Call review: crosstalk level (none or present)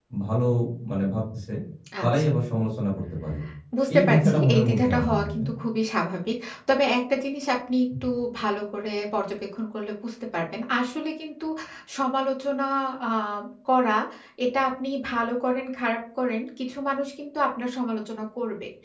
present